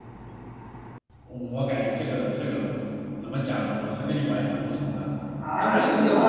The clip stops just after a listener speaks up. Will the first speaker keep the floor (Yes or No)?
No